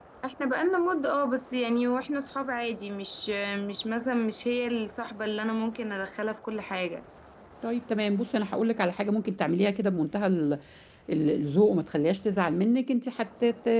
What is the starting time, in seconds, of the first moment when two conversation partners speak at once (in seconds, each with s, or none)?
none